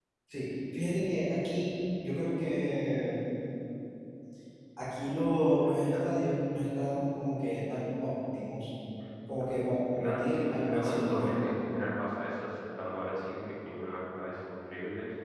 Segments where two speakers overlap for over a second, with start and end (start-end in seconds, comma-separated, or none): 9.4-11.3